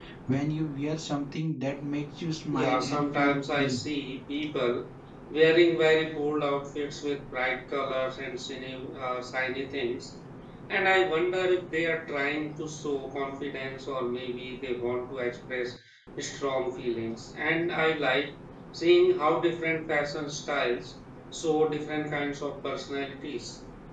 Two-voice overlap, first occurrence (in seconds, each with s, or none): 2.5 s